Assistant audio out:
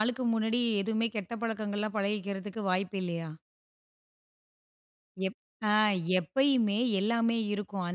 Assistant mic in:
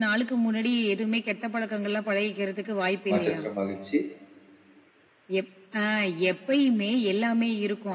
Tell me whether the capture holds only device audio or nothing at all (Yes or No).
No